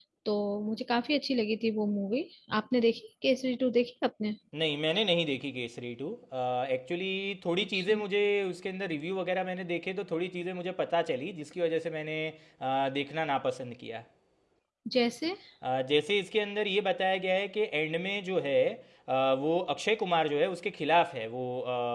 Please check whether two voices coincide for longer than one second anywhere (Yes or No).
No